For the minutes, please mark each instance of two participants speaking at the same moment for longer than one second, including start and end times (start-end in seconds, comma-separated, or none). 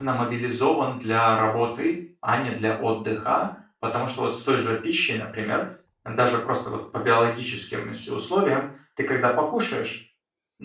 none